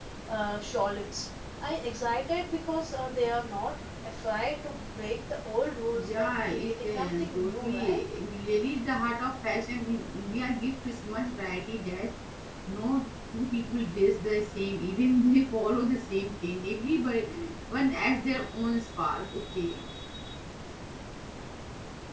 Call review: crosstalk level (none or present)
present